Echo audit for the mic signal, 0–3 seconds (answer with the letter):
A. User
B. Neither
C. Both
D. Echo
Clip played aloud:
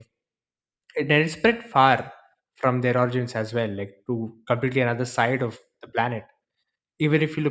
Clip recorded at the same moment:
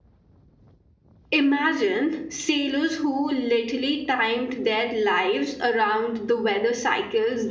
A